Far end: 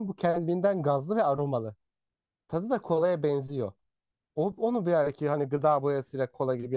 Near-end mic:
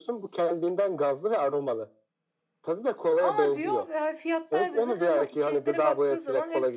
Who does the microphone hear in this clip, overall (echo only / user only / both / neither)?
both